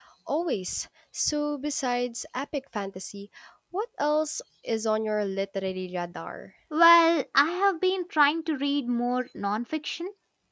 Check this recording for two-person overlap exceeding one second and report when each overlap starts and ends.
none

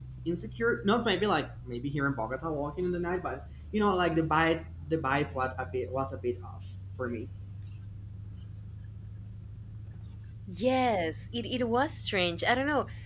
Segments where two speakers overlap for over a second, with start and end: none

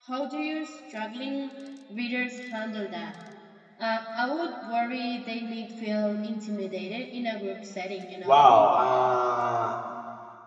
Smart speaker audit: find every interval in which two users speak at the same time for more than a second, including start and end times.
none

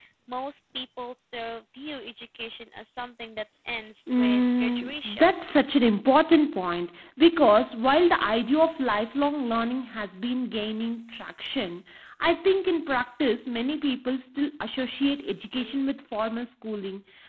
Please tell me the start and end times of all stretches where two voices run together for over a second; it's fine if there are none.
4.1-5.3

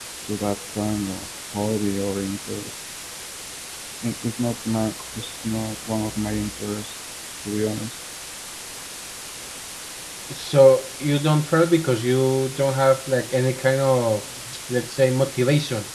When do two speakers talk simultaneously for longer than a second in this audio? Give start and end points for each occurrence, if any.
none

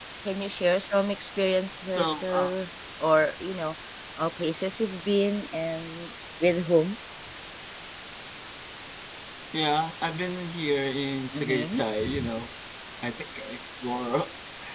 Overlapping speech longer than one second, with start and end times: none

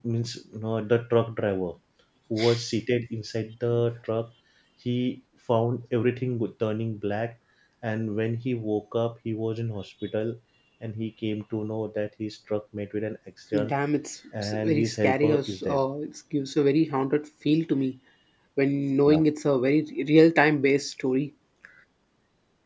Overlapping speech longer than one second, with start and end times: 14.4-15.8

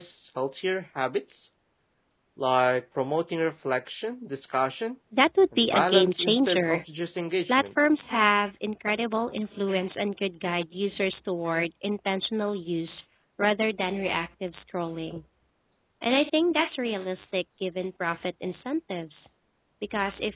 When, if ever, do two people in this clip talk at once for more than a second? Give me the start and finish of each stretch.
5.6-6.8

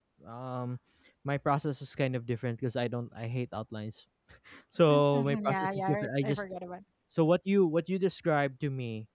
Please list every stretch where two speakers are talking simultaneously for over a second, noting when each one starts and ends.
4.9-6.4

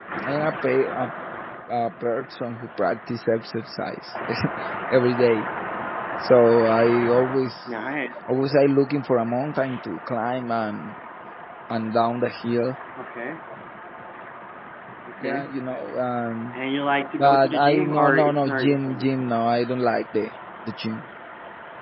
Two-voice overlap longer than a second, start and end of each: 17.2-19.0

